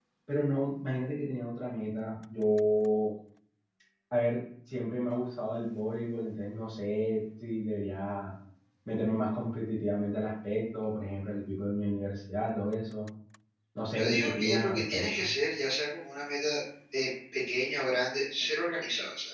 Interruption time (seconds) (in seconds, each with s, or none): 13.9 s